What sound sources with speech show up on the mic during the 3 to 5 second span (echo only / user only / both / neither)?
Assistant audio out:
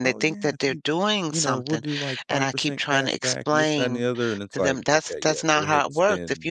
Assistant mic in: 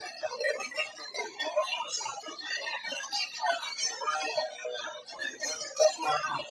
echo only